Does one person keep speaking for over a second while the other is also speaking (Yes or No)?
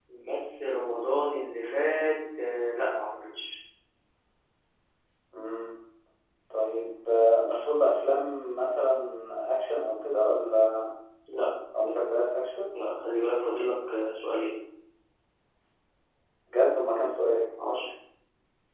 No